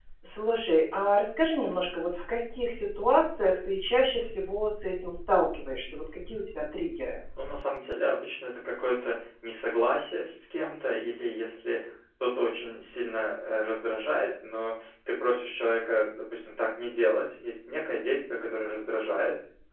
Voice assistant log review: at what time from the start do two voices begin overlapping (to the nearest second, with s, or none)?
none